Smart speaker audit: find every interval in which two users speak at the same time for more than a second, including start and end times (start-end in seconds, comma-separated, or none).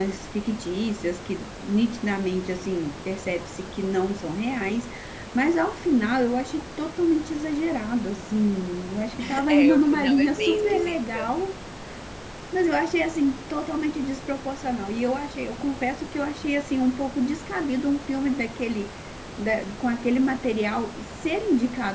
9.5-11.3